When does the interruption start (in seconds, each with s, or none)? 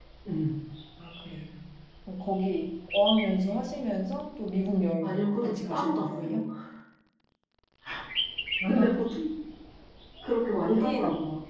5.0 s